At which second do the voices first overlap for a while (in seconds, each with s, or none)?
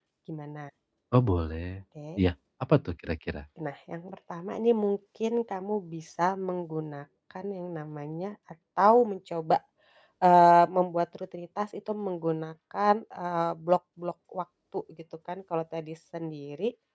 none